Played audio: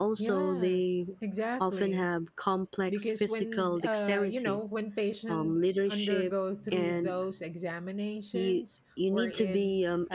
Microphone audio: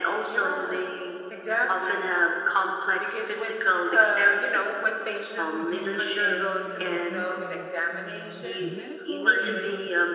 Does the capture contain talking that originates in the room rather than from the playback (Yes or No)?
Yes